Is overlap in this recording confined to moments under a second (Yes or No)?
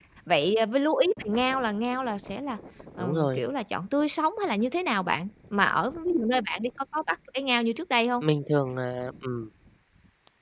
Yes